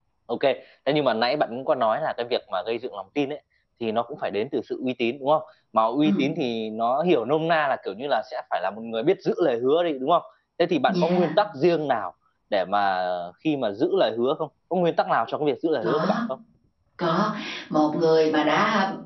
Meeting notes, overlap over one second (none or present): none